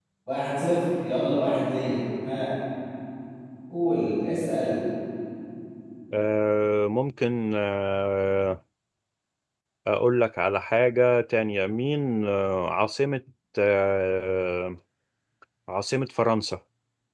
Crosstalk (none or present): none